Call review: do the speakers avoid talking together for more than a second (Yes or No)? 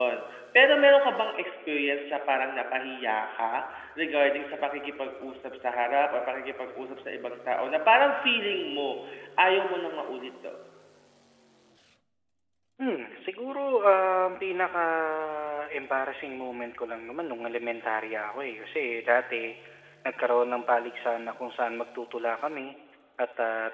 Yes